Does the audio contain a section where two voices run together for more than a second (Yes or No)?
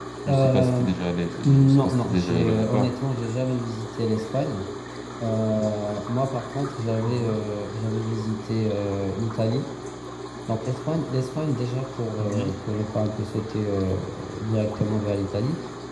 Yes